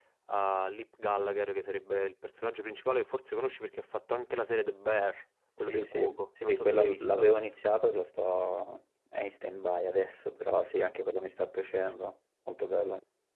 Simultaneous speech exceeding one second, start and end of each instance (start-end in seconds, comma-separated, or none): 5.6-7.3